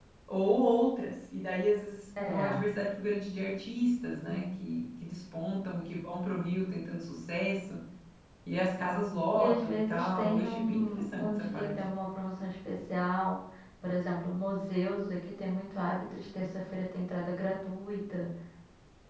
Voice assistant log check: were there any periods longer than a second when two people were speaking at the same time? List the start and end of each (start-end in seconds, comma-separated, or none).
9.3-11.7